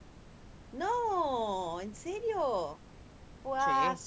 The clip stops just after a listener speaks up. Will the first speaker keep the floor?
Yes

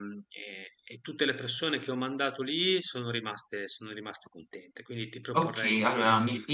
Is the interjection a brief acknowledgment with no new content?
No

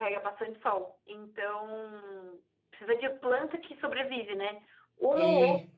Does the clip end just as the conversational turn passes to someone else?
No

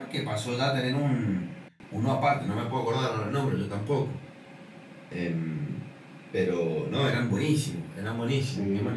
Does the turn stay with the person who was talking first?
No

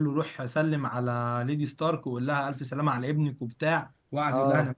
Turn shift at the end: No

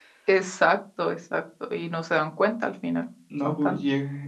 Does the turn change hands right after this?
Yes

